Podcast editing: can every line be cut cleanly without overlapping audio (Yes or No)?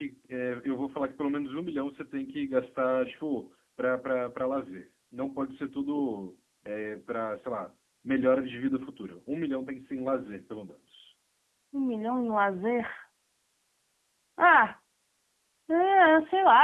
Yes